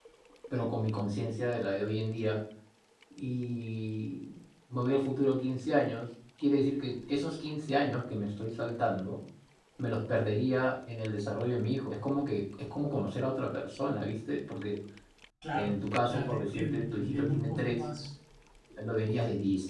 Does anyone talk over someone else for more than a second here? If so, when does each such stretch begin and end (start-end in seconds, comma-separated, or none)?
15.5-17.9